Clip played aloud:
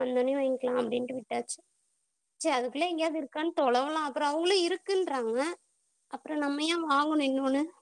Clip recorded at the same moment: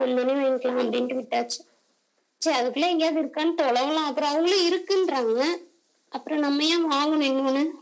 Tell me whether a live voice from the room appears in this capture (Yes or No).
No